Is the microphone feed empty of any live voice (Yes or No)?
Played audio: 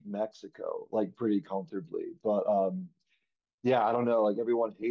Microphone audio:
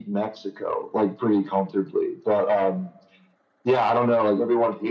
Yes